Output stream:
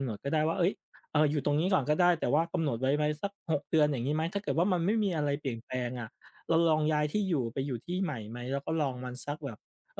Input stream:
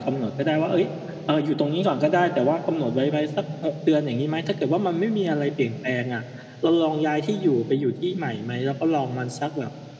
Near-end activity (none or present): none